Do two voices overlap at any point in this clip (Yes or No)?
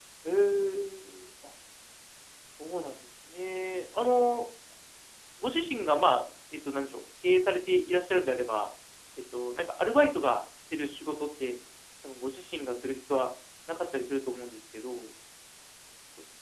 No